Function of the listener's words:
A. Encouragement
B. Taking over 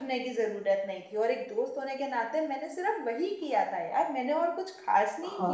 B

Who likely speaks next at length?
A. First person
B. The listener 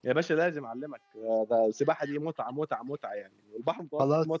B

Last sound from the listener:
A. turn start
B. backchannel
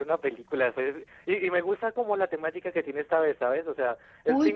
A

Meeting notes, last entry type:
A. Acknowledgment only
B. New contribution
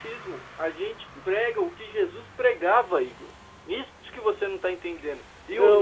A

